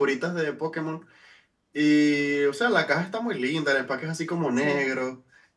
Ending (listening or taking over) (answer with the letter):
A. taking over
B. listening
B